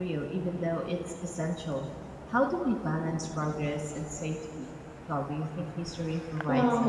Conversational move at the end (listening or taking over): taking over